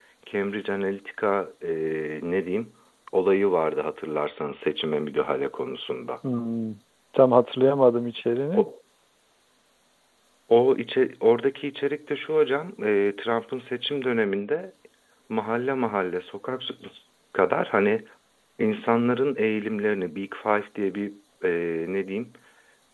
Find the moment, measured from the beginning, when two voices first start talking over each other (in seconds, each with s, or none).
none